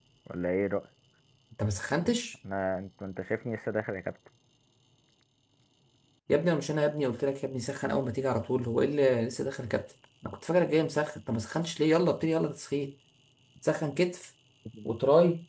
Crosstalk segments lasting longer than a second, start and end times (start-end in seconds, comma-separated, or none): none